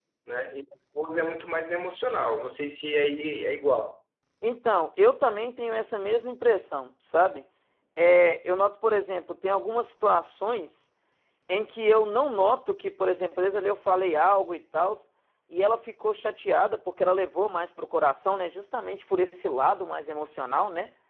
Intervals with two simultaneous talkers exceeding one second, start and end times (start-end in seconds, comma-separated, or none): none